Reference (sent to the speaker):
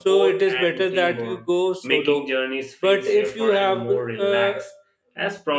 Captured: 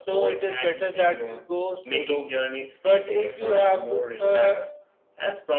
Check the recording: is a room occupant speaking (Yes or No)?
No